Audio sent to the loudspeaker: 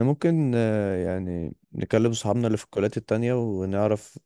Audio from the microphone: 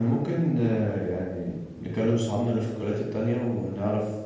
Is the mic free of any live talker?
Yes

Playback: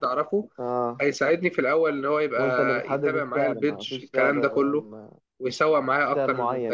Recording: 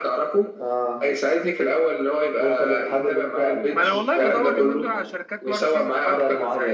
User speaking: Yes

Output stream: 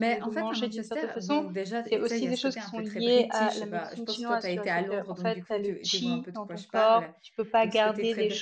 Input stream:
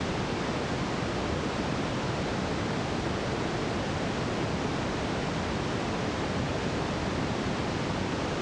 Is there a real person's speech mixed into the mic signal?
No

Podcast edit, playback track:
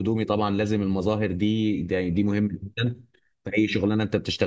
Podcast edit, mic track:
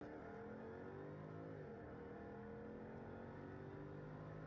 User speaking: No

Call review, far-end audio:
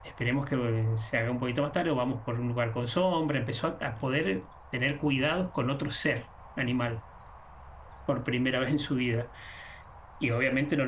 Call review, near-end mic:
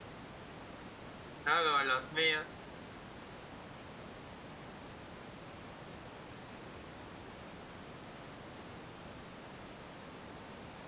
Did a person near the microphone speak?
Yes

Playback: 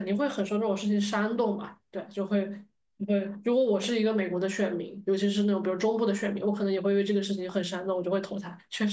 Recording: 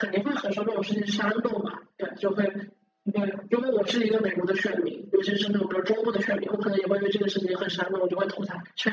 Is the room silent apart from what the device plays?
Yes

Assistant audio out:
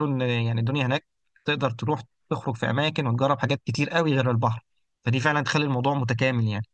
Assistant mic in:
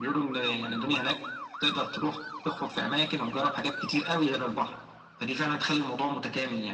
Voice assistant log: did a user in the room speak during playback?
No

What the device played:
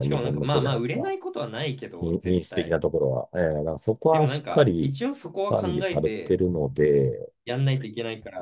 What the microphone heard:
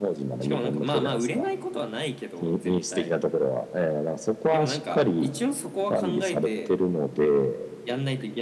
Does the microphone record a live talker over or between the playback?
No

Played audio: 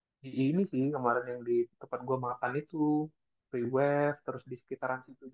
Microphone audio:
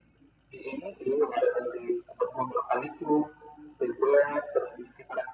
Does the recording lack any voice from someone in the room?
Yes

